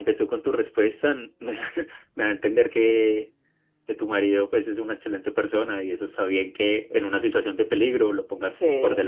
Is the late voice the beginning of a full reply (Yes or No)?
Yes